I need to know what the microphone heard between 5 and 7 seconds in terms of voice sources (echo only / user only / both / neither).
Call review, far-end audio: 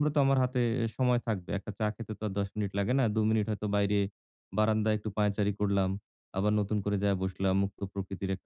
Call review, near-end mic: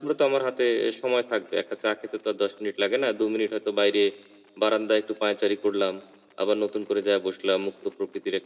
echo only